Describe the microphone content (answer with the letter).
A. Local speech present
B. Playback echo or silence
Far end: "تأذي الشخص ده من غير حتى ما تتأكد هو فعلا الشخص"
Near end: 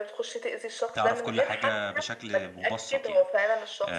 A